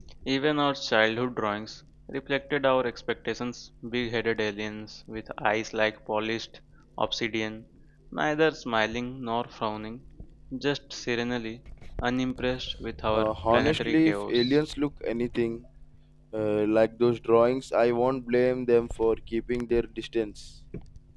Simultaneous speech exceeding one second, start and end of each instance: 13.1-14.6

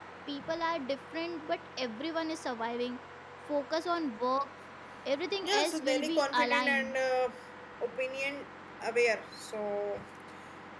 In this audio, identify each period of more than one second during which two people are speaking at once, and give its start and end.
5.4-7.0

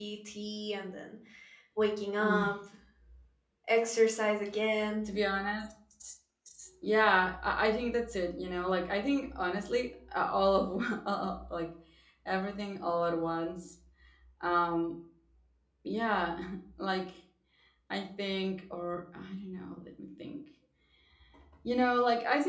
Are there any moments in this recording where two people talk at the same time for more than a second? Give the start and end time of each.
none

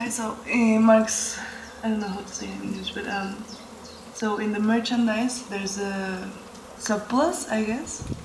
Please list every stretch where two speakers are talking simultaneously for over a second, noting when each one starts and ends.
none

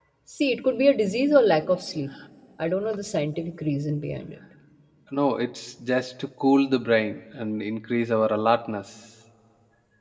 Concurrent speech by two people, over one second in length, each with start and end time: none

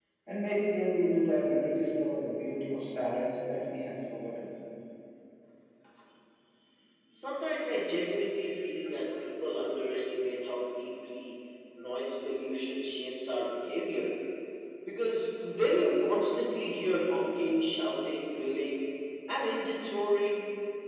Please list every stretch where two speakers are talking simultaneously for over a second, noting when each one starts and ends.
none

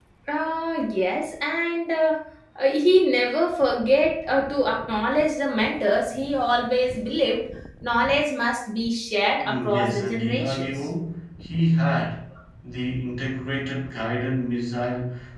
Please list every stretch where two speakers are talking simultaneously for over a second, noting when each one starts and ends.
9.4-10.7

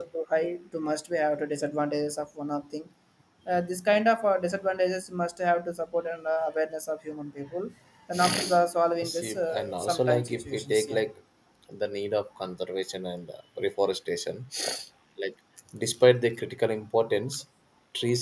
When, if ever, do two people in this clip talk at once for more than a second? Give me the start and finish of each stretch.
9.0-11.0

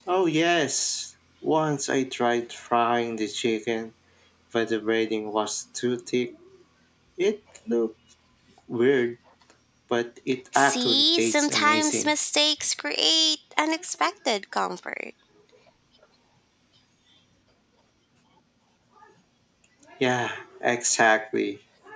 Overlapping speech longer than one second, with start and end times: 10.6-12.1

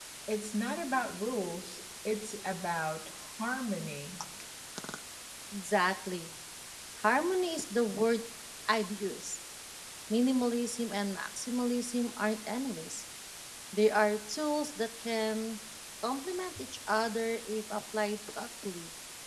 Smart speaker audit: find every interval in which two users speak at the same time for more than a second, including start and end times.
none

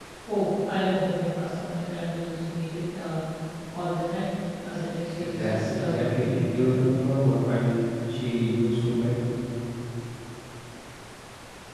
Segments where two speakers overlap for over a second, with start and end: 5.2-6.8

